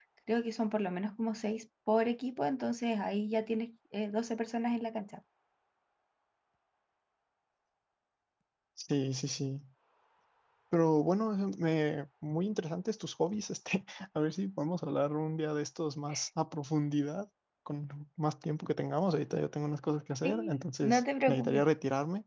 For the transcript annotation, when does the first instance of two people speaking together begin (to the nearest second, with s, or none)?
20 s